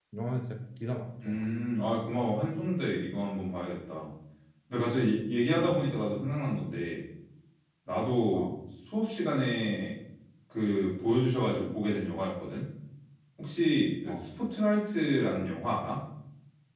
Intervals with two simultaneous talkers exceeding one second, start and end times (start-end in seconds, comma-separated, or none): none